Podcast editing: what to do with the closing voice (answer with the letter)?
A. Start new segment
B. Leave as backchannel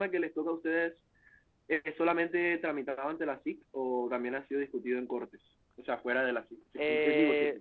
A